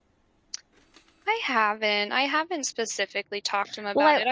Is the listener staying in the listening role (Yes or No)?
Yes